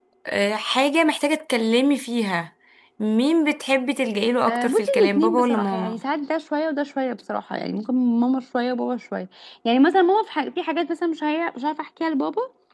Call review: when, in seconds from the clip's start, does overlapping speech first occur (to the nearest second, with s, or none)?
4 s